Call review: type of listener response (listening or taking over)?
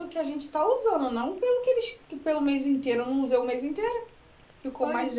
listening